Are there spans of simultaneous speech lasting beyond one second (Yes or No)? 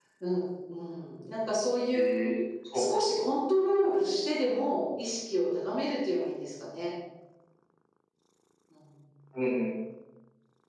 No